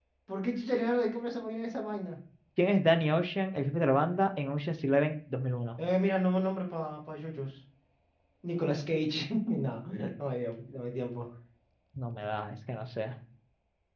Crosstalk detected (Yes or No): No